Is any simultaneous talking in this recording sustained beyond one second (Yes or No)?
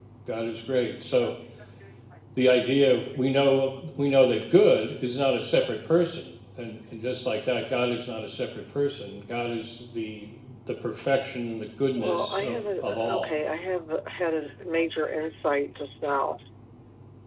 Yes